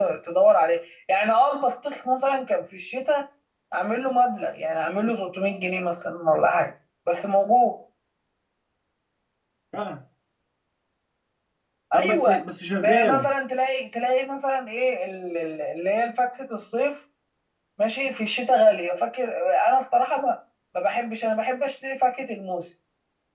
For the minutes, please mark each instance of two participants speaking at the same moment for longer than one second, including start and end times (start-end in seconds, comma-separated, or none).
none